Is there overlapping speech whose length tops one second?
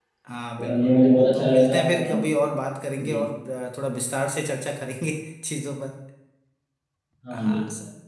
Yes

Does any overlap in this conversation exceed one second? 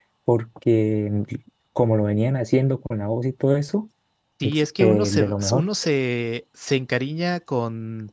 Yes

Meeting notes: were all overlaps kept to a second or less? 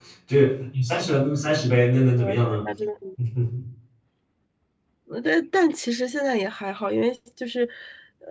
Yes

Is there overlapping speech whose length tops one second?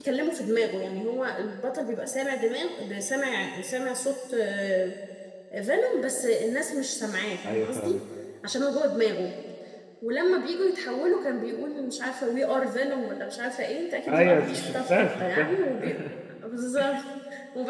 Yes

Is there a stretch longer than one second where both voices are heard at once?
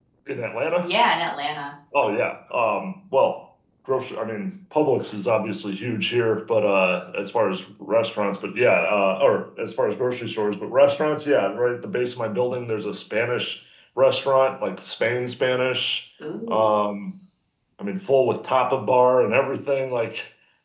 No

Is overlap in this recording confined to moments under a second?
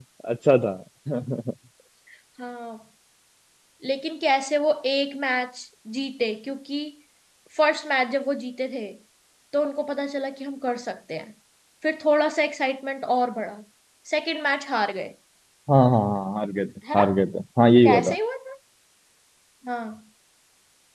Yes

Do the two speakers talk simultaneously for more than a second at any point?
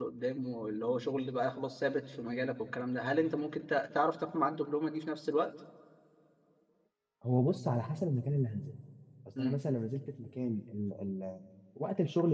No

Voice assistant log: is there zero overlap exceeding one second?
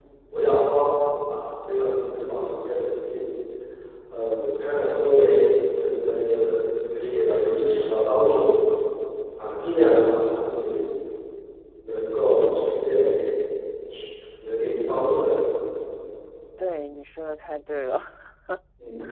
Yes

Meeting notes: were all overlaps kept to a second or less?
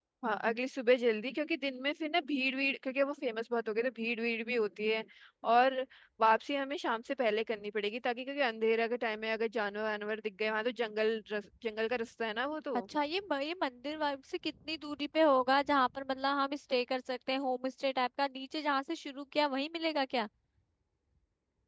Yes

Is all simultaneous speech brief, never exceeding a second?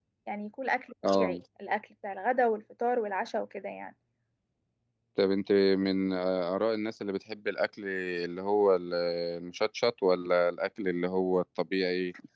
Yes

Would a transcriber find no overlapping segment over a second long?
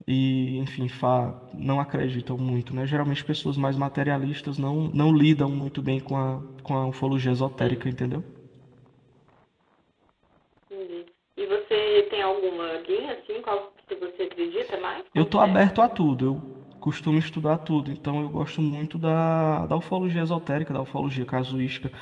Yes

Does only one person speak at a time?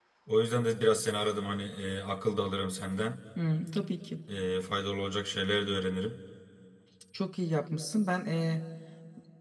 Yes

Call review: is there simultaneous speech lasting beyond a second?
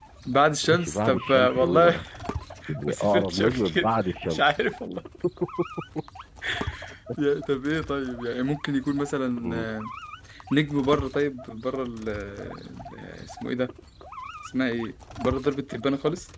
Yes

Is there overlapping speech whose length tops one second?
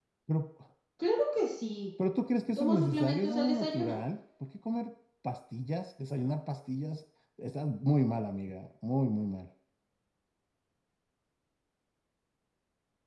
Yes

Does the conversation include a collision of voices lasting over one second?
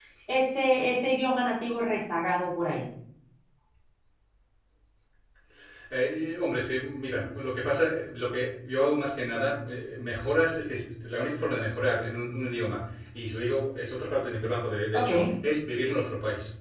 No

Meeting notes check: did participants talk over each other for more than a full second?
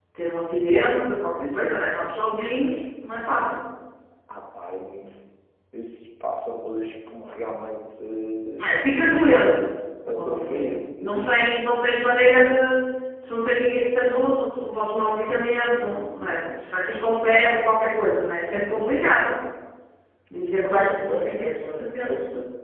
Yes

